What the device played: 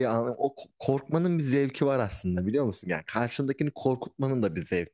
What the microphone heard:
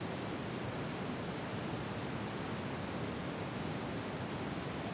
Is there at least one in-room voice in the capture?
No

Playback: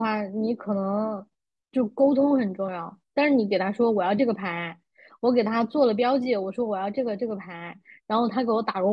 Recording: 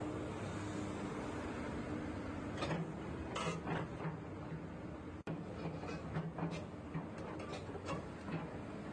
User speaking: No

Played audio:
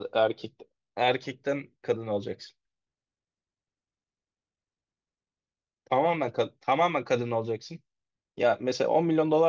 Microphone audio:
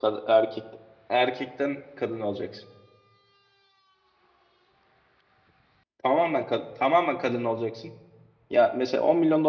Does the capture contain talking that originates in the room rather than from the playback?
No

